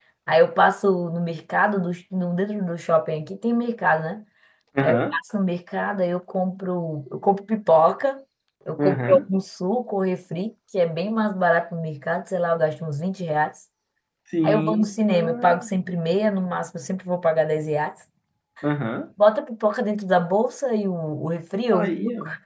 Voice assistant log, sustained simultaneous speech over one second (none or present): present